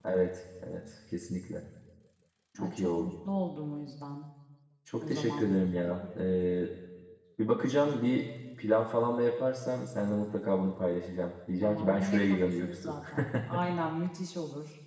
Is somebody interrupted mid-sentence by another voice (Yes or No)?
Yes